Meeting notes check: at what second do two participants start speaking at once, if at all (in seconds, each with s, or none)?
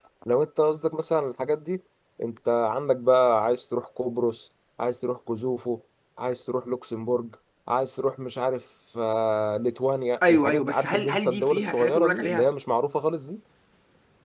10.2 s